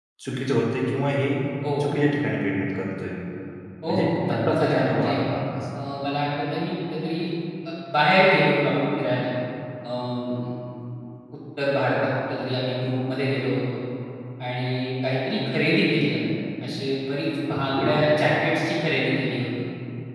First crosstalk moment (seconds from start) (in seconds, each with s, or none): 3.9 s